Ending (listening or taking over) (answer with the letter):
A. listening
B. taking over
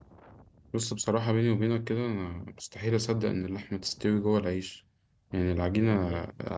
A